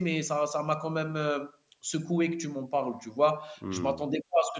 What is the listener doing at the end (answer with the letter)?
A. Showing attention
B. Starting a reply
A